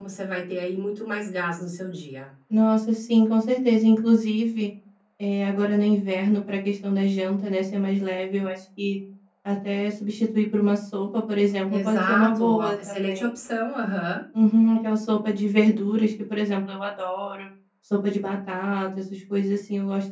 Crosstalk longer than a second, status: present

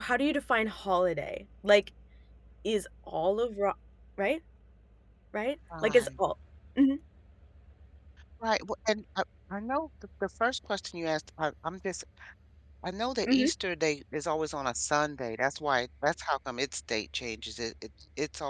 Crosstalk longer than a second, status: none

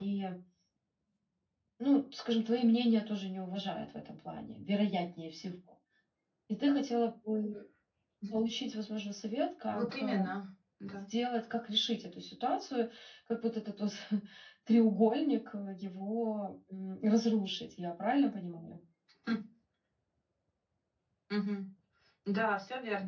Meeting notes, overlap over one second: none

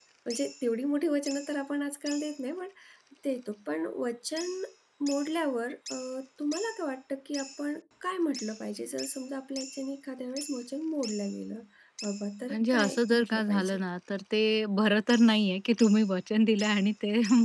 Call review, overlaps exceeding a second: present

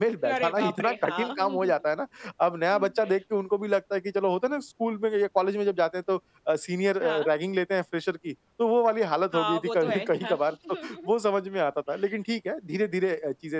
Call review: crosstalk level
present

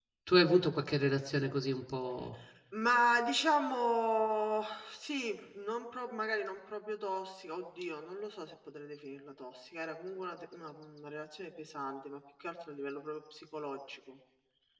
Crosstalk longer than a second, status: none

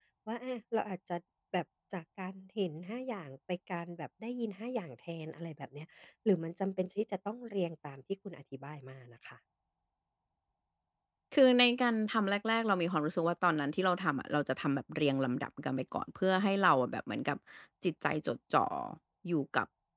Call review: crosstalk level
none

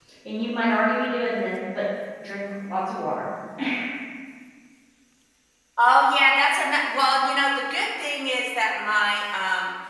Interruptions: none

